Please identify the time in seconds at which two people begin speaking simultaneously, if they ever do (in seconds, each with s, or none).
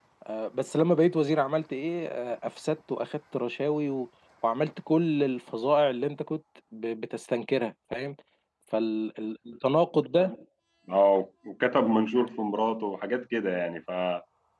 none